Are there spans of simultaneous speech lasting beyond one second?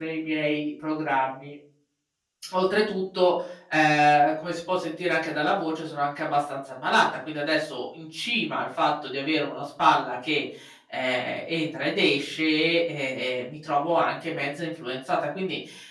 No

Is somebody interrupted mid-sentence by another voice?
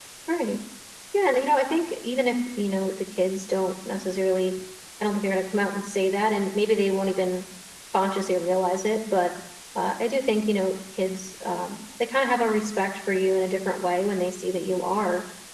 No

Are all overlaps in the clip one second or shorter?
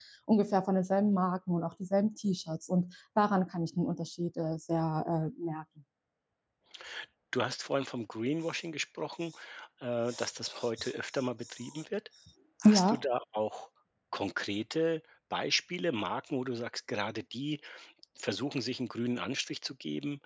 Yes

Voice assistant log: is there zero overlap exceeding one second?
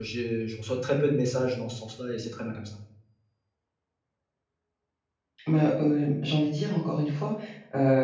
Yes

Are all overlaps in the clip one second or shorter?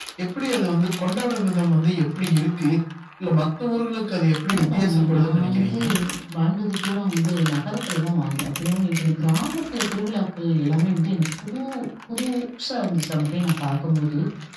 No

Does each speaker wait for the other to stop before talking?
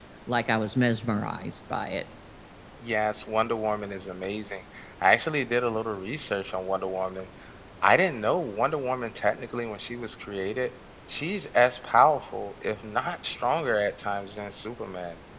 Yes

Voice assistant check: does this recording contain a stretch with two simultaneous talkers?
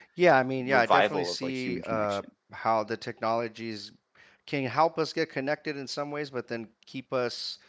Yes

